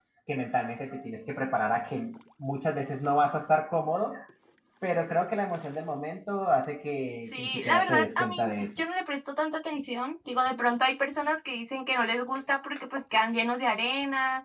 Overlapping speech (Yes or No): Yes